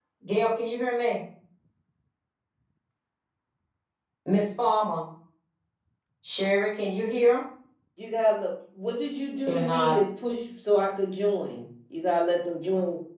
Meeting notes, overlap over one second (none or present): none